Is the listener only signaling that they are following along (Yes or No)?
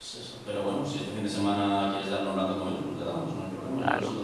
No